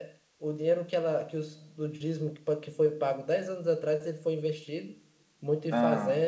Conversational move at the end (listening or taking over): listening